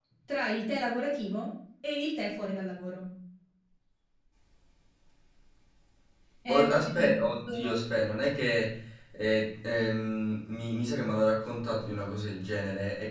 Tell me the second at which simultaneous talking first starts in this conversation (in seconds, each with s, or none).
6.5 s